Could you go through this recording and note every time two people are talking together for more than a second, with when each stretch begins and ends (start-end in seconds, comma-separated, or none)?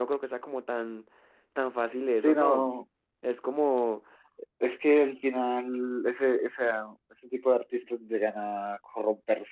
none